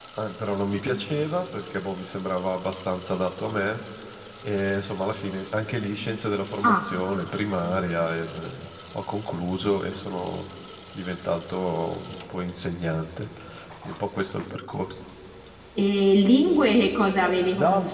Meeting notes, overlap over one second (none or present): none